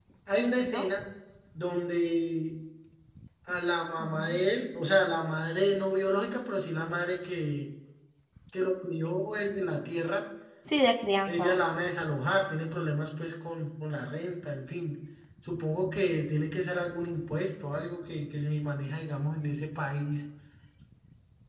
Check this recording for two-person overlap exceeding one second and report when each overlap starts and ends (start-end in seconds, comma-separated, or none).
none